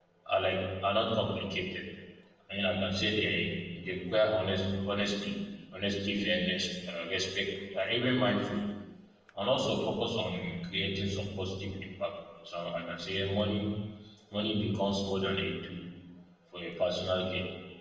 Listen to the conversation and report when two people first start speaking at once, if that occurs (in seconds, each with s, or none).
none